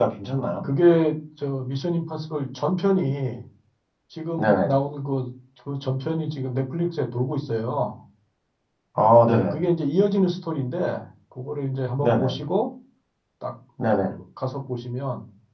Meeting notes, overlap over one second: none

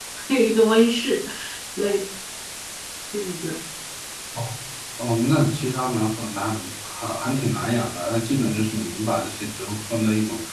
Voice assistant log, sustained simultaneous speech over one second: none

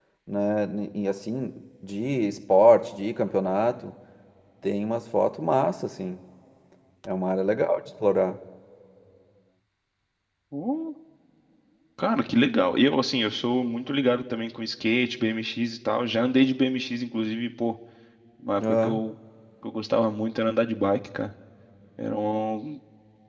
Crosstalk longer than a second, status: none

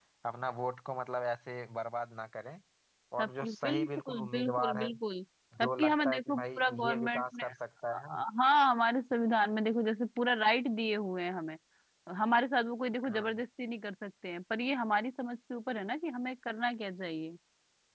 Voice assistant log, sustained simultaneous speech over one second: present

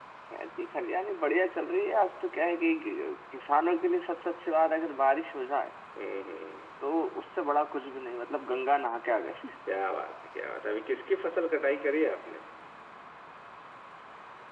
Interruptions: none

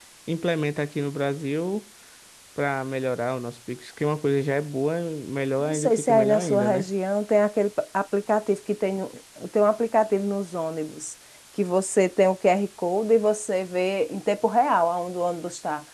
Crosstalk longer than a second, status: present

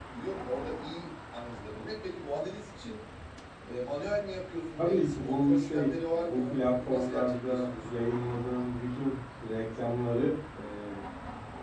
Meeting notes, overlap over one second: present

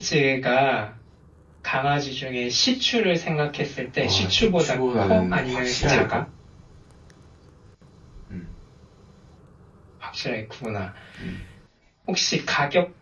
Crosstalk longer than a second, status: present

